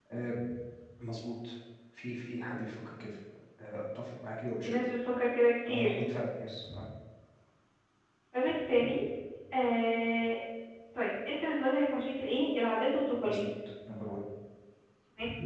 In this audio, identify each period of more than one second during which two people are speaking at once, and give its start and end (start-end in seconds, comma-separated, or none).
none